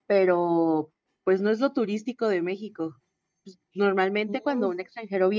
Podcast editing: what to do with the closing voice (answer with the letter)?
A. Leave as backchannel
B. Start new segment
A